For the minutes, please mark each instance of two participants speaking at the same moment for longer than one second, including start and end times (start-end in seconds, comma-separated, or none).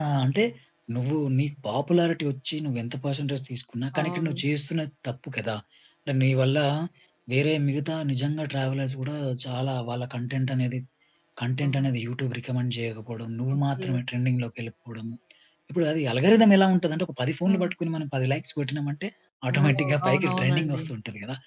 19.6-20.8